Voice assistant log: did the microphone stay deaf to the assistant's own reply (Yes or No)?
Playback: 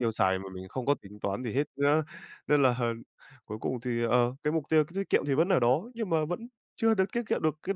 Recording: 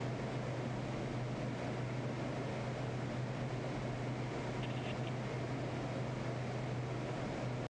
Yes